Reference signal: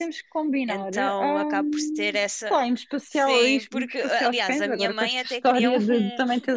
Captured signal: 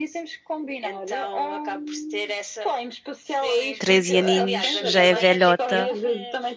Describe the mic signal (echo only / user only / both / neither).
both